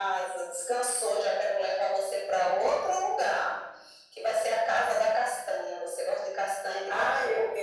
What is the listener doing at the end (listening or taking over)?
taking over